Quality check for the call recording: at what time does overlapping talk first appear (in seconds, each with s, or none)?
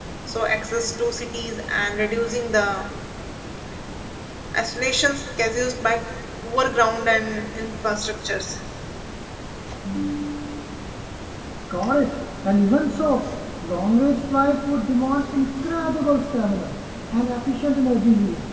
none